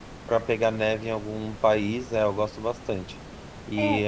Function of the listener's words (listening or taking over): listening